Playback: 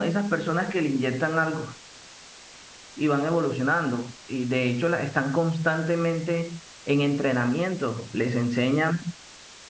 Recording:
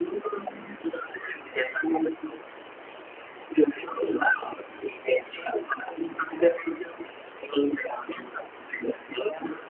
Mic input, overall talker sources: echo only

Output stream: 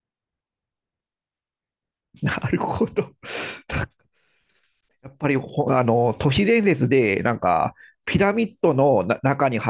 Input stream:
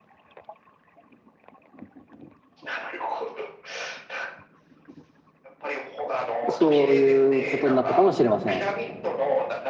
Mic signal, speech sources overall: both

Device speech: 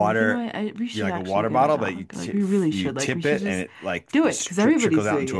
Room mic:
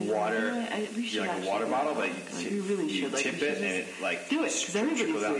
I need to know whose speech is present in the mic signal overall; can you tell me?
echo only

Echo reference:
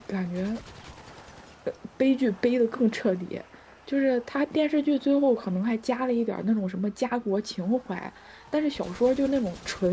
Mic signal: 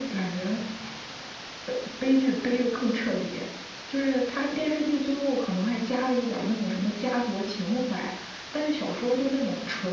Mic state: echo only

